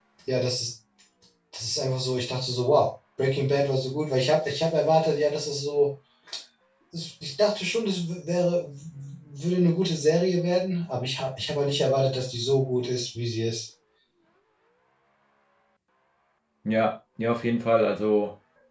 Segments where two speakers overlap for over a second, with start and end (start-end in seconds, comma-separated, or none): none